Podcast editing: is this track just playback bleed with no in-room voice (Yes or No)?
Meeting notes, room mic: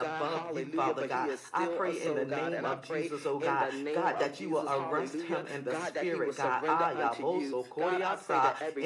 No